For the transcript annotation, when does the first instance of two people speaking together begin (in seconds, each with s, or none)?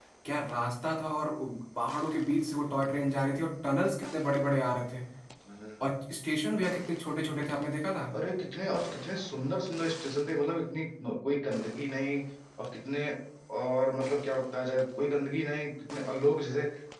none